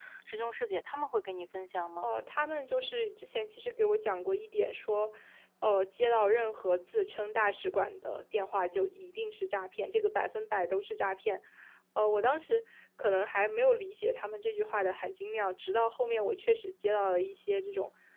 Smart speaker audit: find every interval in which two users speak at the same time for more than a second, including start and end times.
none

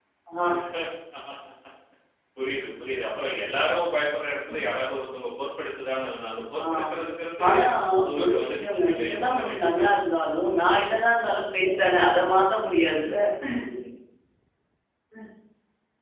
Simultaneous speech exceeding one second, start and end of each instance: 8.2-9.8

